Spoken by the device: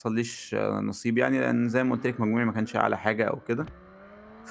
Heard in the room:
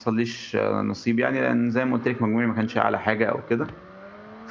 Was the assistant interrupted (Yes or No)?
No